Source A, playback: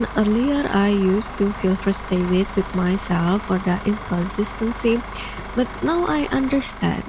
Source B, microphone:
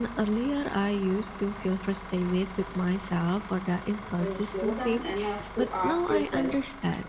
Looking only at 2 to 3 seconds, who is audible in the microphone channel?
echo only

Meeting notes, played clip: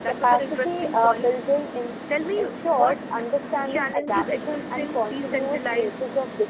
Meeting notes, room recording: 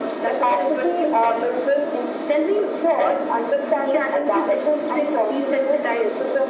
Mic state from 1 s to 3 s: echo only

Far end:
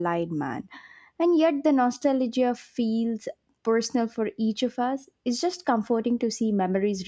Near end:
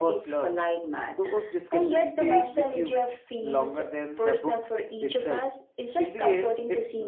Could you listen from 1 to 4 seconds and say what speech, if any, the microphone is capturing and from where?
both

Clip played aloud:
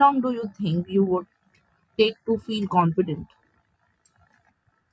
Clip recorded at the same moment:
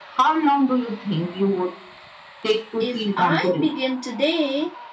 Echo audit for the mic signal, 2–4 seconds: both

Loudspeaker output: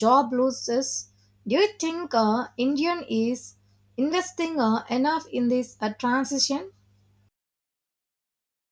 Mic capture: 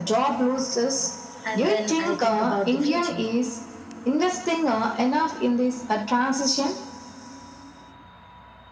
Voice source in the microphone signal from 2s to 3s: both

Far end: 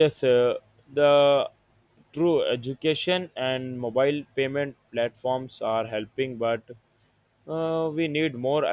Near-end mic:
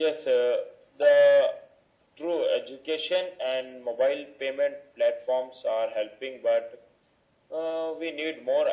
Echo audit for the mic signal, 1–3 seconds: echo only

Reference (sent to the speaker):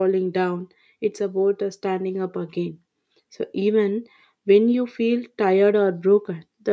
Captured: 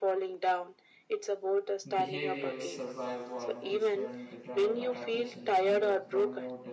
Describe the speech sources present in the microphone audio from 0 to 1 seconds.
echo only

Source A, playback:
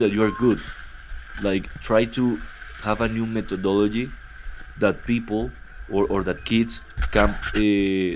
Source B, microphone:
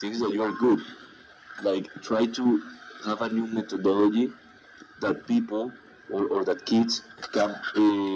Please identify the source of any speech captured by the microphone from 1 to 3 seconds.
echo only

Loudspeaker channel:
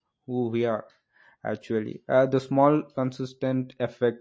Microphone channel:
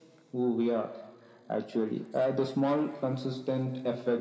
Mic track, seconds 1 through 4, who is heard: echo only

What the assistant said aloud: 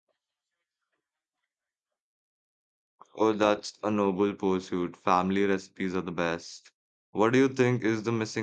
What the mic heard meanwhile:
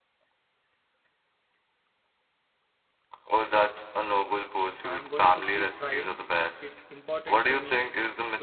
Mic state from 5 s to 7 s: both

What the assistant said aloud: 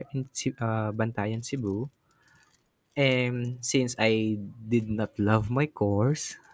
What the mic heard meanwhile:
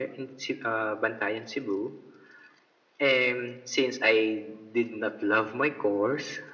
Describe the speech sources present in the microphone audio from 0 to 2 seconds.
echo only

